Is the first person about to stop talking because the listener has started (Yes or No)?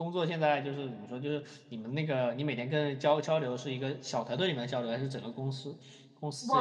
Yes